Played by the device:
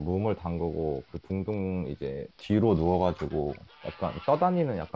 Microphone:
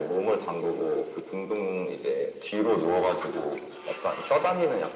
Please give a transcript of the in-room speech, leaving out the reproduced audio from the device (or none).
none